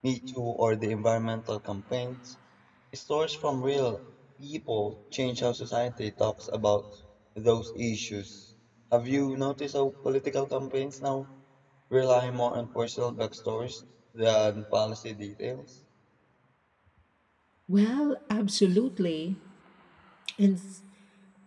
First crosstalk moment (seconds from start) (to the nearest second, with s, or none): none